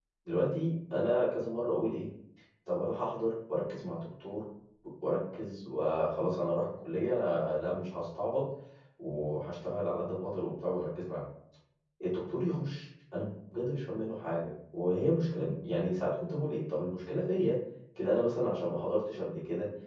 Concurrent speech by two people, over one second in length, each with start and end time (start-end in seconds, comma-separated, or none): none